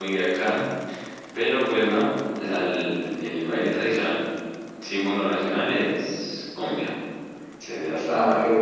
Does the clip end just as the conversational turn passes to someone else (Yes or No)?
Yes